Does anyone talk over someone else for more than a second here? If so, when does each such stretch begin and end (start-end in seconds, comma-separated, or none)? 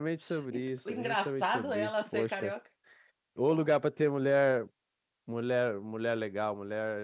0.5-2.5